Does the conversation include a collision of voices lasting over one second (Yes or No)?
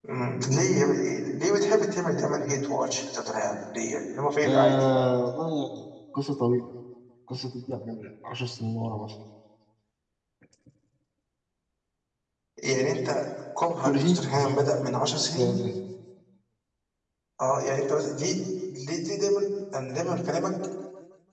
No